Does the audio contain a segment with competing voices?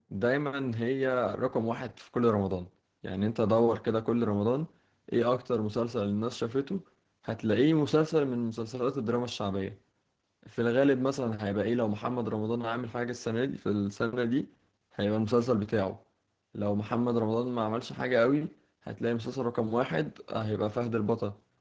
No

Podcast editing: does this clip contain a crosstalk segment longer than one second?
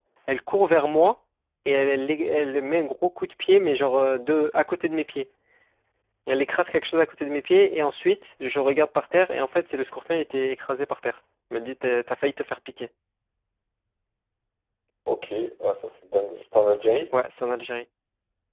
No

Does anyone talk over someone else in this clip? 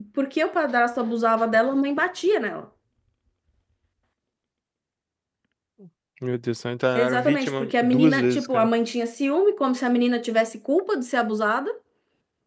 Yes, from 6.9 s

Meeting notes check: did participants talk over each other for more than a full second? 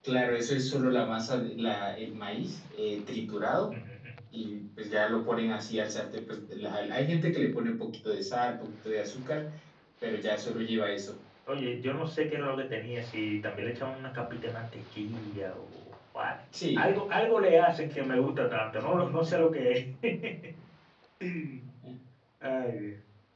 No

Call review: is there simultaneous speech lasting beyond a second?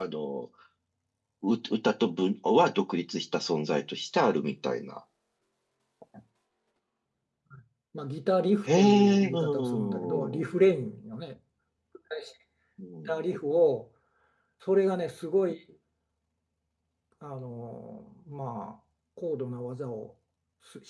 Yes, from 8.7 s

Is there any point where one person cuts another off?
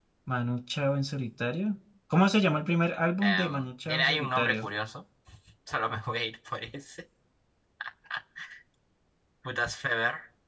Yes, from 3.2 s

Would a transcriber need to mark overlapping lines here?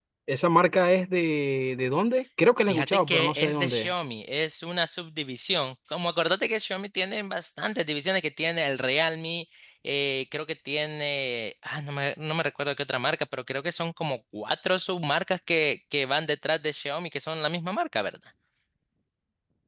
Yes, from 2.7 s

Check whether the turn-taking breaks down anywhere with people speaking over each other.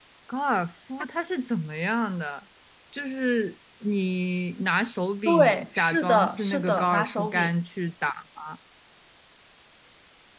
Yes, from 5.2 s

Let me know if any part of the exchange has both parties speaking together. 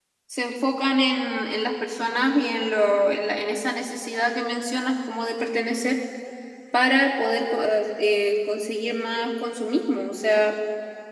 No

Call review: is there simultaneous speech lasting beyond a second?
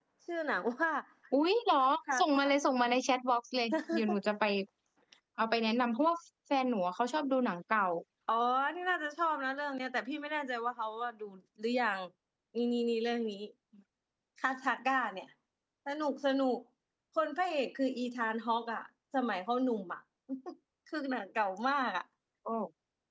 No

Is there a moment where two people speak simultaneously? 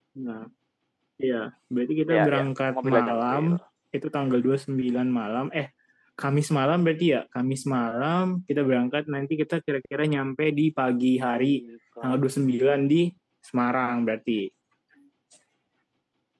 Yes, from 2.2 s

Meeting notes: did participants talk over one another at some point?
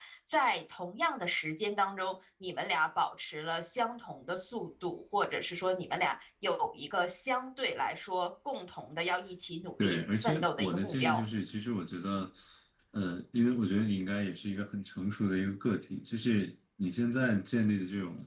Yes, from 9.8 s

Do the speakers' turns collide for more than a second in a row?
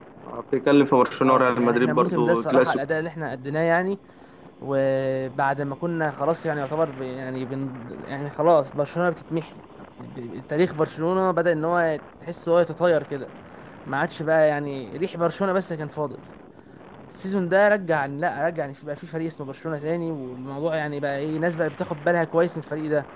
Yes, from 1.3 s

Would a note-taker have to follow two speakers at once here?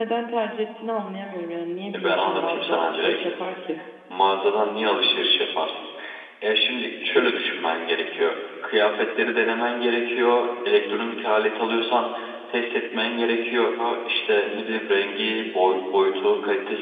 Yes, from 1.9 s

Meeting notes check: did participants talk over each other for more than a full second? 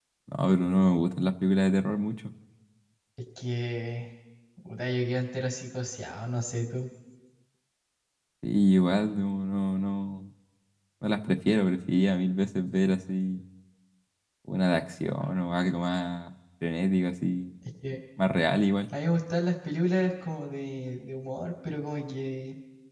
No

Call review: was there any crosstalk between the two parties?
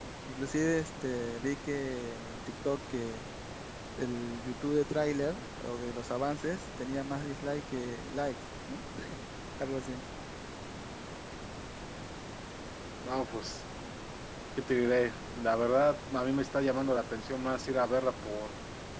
No

